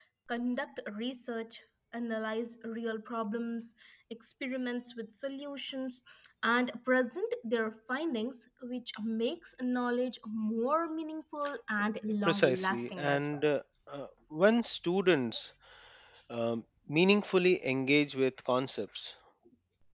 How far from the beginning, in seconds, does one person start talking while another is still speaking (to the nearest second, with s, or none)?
12 s